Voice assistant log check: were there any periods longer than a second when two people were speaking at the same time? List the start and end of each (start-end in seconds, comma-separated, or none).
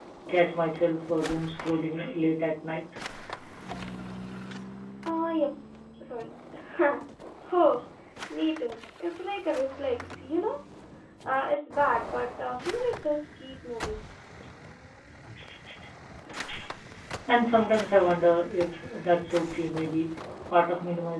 none